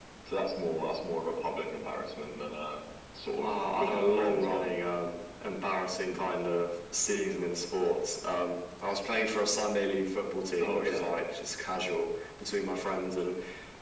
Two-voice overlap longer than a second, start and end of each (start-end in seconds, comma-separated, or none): 3.4-4.7